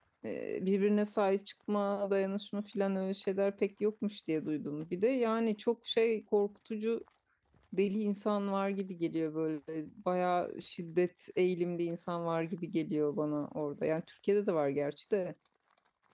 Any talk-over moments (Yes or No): No